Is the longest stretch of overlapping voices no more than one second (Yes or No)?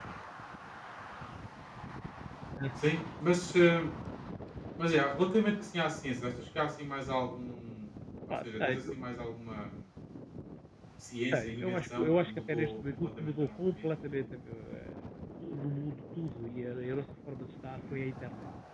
No